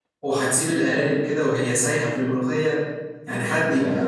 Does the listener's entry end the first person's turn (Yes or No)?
Yes